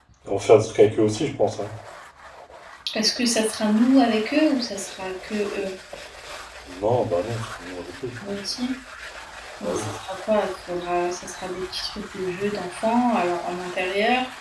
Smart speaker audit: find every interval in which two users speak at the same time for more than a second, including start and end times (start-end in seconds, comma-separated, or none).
none